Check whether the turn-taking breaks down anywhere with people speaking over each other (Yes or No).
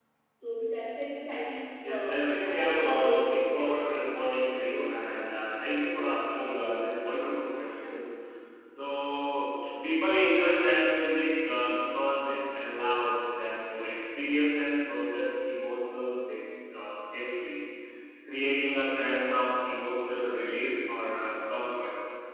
Yes